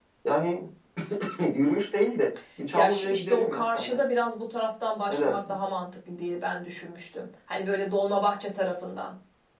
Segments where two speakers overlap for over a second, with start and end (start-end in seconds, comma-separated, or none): 2.7-4.0